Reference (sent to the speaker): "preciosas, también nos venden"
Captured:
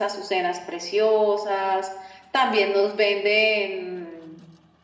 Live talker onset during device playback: none

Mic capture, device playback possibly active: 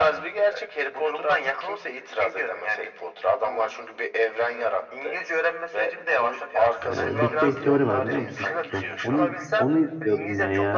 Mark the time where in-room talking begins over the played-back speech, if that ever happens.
6.8 s

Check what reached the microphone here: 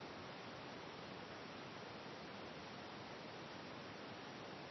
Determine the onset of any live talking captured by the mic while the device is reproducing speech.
none

